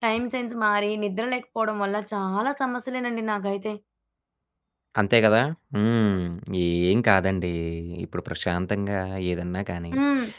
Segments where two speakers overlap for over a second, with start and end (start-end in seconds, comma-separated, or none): none